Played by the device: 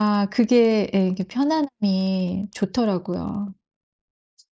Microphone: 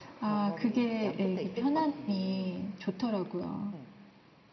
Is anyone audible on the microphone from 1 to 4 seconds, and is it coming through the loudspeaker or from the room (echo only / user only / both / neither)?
both